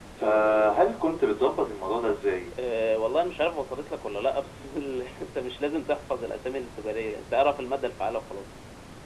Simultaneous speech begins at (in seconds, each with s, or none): none